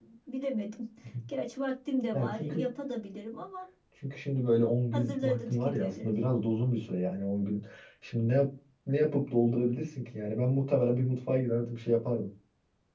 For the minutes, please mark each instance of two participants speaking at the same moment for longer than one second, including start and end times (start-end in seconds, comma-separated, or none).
4.9-6.1